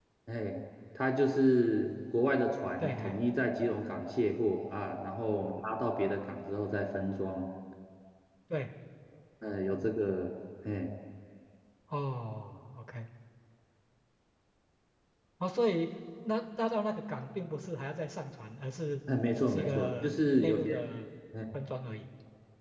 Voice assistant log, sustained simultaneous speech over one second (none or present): present